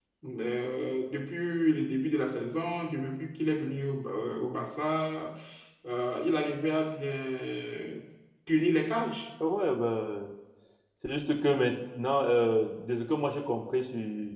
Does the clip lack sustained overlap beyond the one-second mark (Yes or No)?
Yes